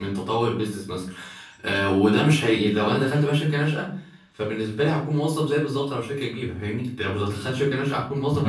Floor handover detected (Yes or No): Yes